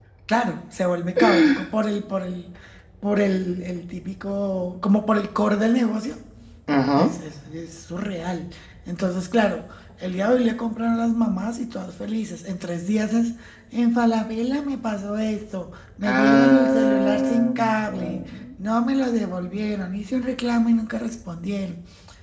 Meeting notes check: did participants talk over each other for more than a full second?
Yes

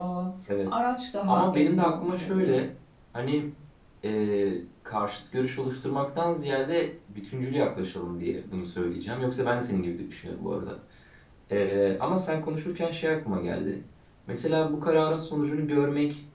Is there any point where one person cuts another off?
Yes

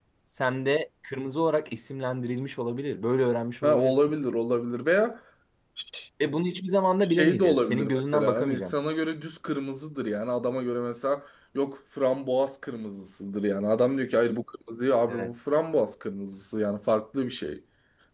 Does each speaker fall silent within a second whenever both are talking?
No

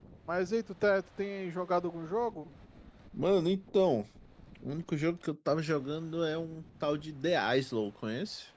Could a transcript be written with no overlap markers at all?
Yes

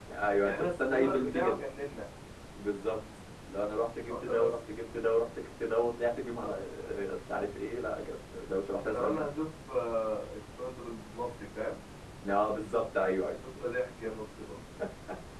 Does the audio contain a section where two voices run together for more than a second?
Yes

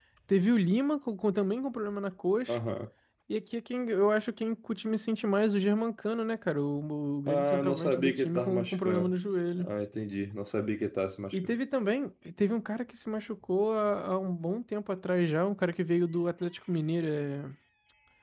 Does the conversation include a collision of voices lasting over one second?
Yes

